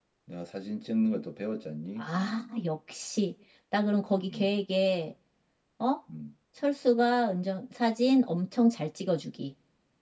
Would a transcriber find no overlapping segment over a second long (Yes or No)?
Yes